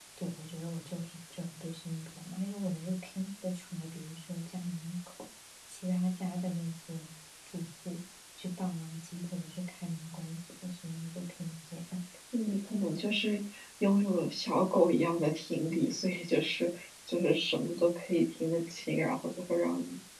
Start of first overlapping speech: none

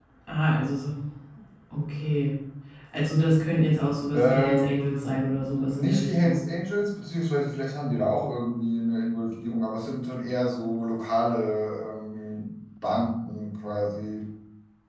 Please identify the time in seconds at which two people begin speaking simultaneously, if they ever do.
4.1 s

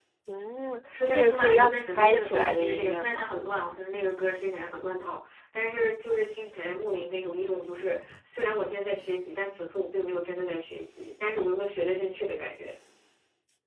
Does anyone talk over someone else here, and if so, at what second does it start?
1.1 s

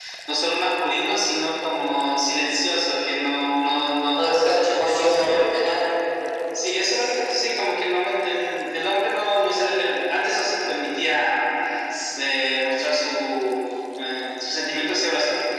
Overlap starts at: 4.2 s

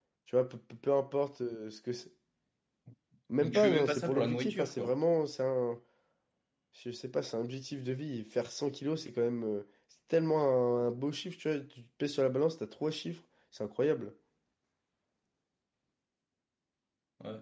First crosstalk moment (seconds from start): 3.4 s

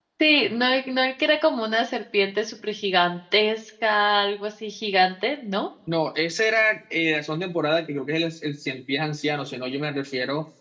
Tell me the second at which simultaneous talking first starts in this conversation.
none

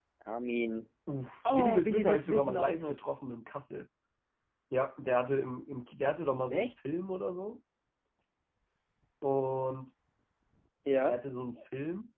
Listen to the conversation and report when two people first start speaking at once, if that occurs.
1.5 s

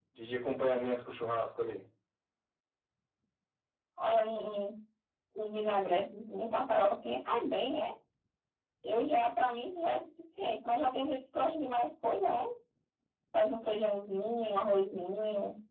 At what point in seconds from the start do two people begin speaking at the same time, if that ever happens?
none

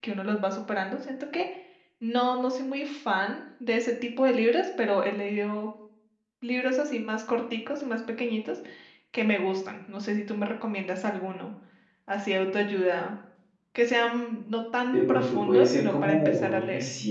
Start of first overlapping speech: 14.9 s

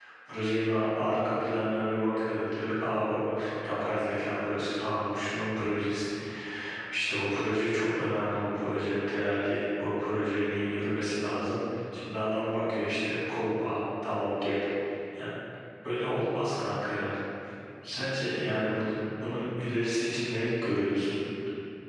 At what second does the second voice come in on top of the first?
none

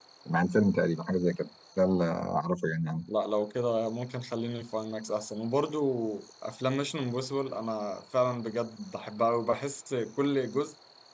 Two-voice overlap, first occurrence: none

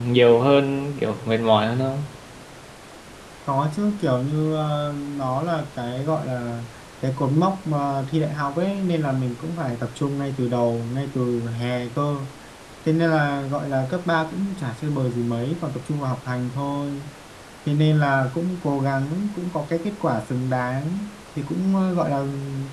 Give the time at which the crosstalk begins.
none

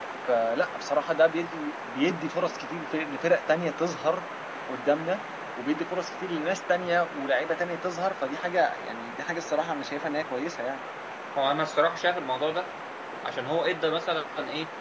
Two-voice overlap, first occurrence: none

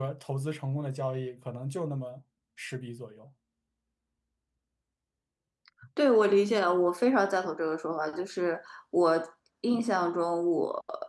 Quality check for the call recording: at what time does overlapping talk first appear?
none

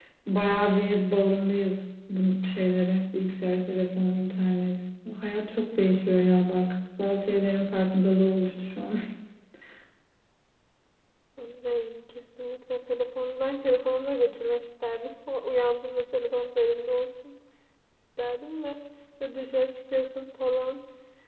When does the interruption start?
none

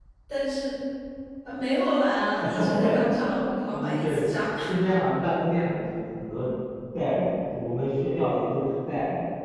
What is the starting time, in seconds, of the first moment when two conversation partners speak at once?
2.4 s

